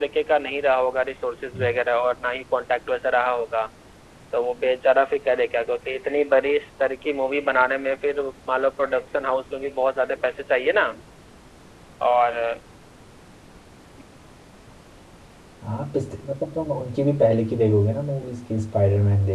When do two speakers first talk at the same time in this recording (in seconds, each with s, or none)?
none